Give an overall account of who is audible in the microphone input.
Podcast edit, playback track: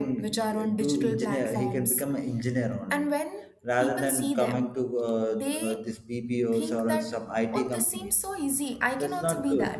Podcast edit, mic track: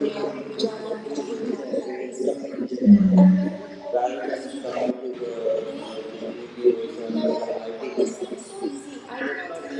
both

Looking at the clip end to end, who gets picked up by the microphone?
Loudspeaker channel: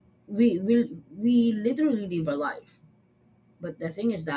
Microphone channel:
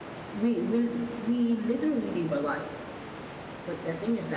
echo only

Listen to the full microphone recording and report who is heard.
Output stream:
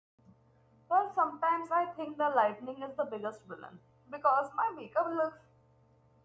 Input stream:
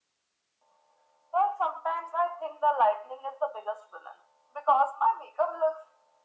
echo only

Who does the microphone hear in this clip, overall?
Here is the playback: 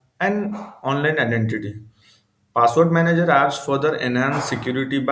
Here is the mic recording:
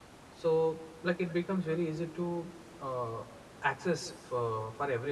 user only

